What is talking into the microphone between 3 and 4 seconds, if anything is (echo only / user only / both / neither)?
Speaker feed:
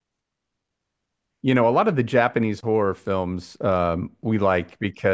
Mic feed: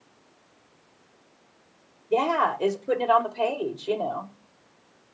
user only